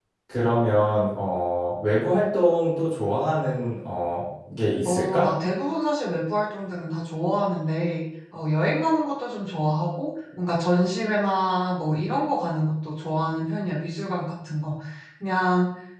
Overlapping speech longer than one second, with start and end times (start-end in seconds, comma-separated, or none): none